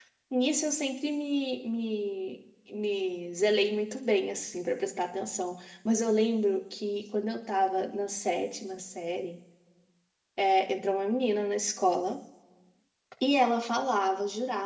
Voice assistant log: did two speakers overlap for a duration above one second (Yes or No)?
No